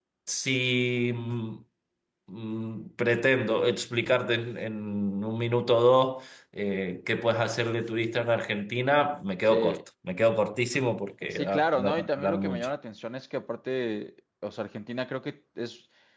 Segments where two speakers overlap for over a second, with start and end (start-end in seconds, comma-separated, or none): 11.3-12.7